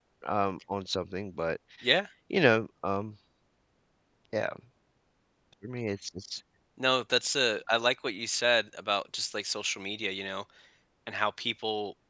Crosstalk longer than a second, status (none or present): none